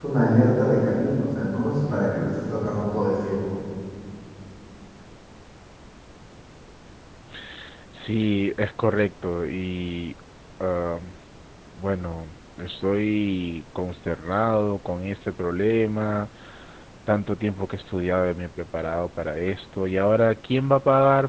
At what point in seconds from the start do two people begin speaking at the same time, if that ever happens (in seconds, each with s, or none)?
none